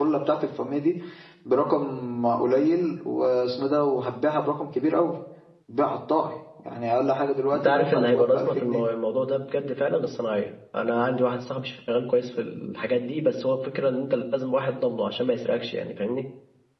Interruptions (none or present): present